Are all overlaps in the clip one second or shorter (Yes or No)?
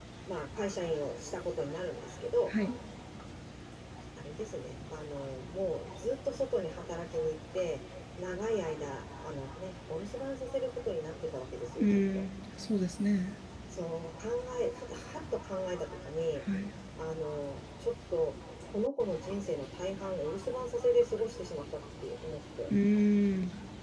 Yes